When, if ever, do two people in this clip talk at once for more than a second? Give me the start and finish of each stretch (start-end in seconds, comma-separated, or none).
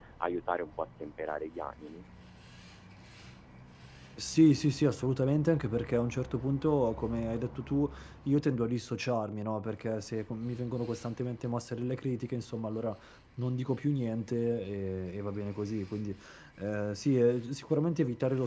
none